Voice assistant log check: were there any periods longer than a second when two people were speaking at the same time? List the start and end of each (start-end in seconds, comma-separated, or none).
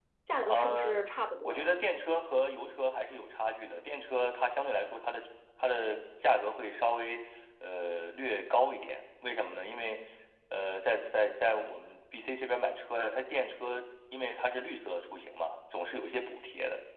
none